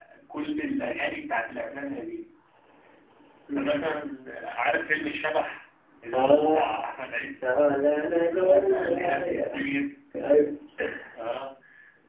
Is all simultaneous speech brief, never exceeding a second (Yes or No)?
No